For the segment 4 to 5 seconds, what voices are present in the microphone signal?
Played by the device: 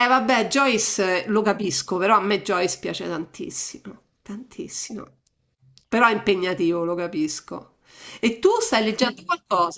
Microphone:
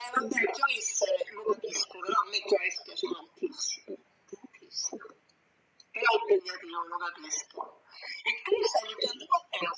echo only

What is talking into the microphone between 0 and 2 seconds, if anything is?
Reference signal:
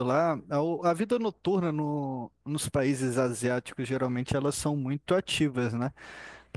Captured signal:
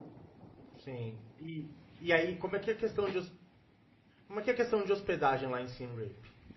user only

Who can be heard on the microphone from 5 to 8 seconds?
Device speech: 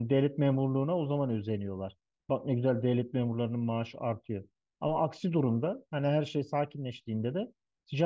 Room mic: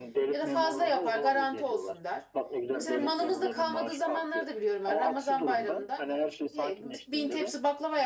both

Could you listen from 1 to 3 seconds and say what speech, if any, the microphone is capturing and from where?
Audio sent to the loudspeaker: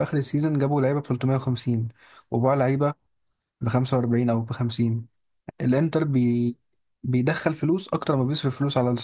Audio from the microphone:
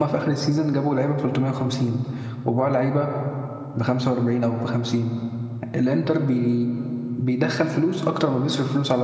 echo only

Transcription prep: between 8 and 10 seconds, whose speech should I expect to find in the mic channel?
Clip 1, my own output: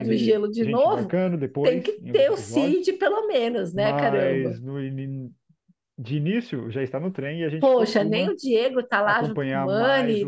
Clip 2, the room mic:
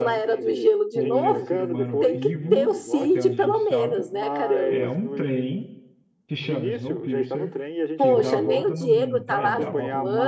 both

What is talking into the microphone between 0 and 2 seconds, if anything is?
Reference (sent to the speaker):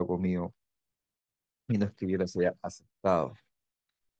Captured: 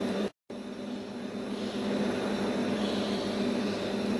neither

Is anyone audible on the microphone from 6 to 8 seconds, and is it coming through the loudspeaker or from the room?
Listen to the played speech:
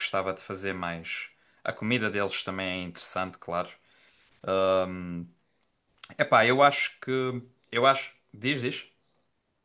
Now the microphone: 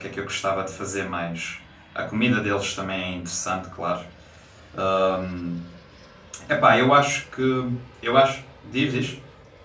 echo only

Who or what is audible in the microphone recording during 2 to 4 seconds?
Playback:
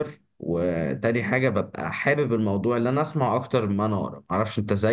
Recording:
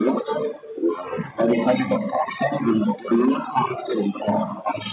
echo only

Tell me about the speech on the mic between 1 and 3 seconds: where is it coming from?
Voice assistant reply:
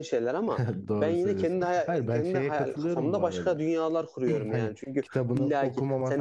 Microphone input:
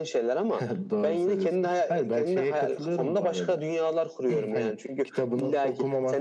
echo only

